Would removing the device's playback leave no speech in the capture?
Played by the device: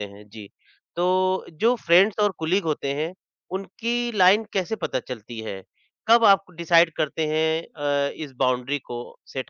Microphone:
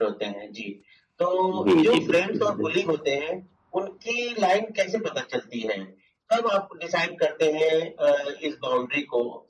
No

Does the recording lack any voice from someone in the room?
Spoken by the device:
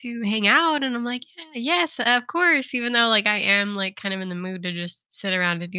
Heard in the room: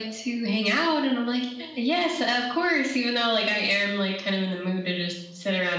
Yes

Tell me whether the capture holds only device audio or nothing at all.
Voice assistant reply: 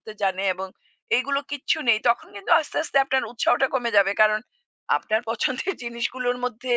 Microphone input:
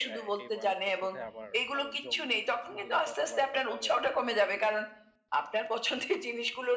No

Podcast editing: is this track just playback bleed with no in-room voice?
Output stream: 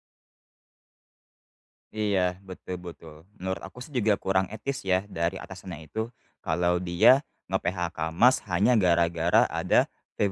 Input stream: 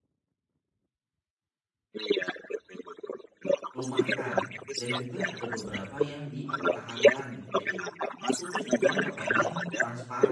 No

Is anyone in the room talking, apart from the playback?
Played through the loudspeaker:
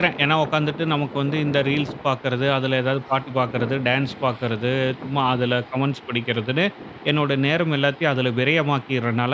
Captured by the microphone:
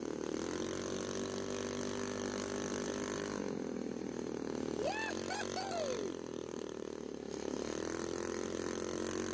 No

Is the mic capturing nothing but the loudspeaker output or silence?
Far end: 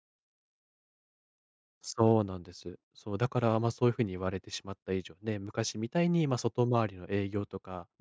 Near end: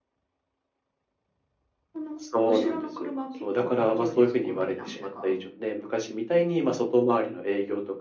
No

